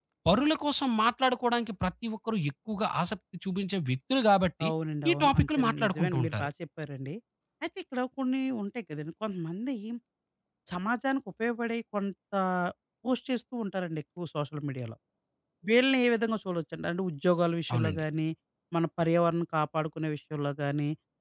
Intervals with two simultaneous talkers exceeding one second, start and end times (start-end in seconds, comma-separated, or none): 5.1-6.5